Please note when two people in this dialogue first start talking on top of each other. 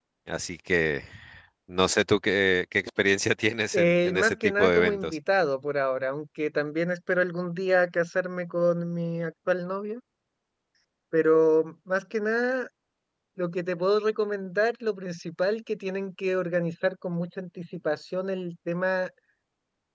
3.7 s

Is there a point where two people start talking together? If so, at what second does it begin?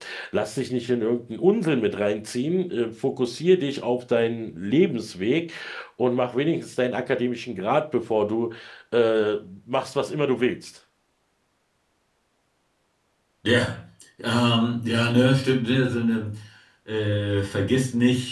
none

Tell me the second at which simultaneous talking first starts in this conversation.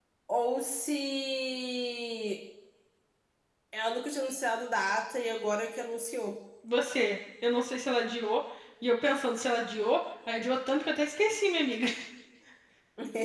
none

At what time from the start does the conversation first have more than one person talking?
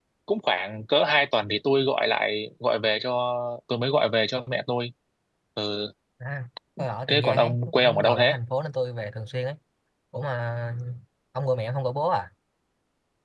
7.1 s

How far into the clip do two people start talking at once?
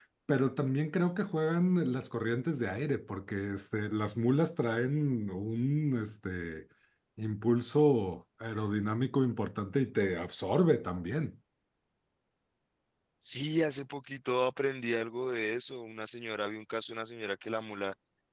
none

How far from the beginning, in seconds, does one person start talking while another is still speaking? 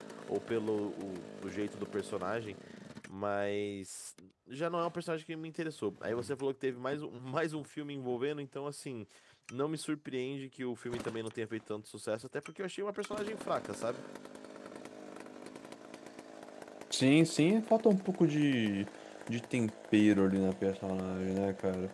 none

